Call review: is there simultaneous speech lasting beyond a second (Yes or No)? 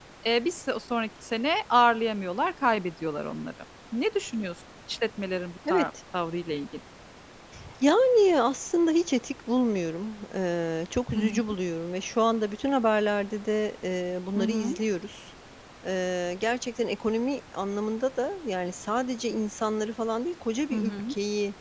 No